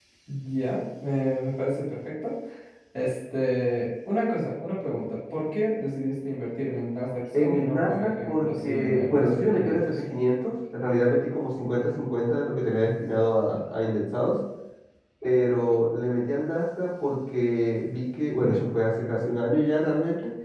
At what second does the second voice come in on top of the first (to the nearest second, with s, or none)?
7 s